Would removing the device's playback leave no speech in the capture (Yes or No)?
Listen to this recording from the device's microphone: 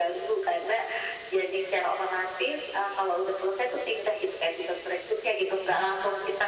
Yes